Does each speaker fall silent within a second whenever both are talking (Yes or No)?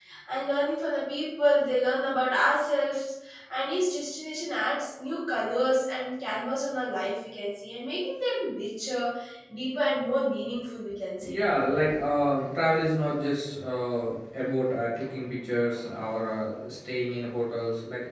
Yes